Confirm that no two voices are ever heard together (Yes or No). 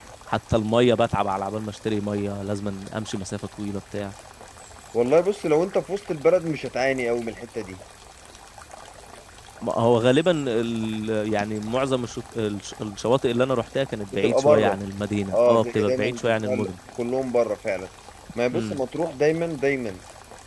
No